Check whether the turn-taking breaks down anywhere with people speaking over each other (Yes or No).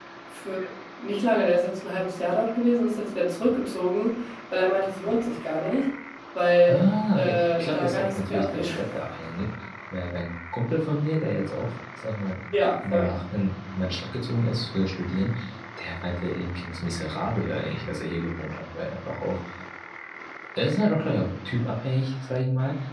Yes